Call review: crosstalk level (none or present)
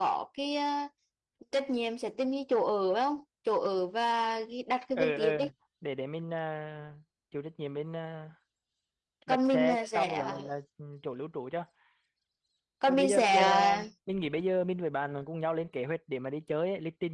present